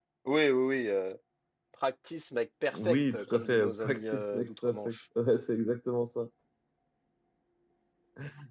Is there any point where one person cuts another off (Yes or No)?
Yes